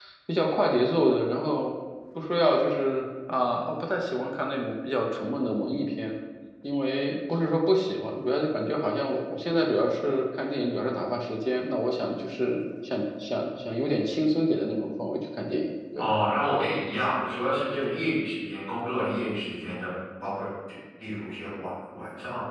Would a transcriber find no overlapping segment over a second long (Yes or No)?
Yes